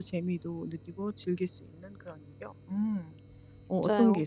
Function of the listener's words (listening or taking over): taking over